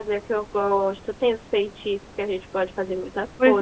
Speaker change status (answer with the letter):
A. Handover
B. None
A